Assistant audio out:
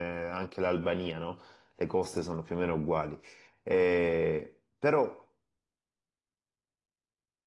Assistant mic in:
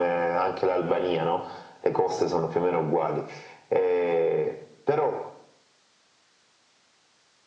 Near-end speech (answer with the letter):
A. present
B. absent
B